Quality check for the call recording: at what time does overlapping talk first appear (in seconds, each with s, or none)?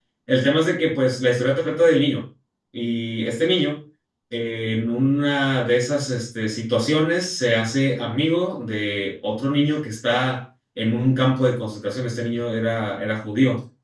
none